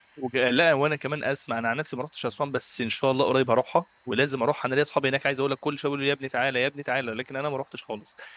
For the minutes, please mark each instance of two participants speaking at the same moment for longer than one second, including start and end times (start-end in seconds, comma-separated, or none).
none